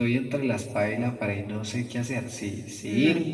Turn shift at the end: No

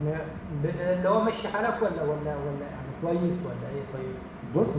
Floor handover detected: Yes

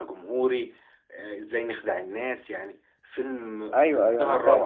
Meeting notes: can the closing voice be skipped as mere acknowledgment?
No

